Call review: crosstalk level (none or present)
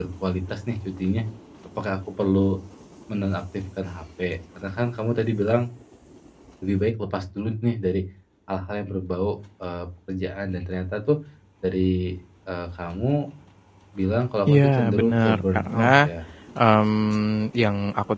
present